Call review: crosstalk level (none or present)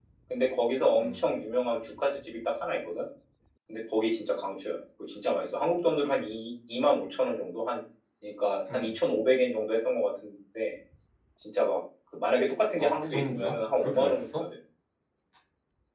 present